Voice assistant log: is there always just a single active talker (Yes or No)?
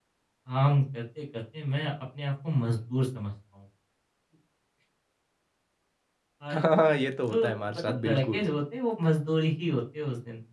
No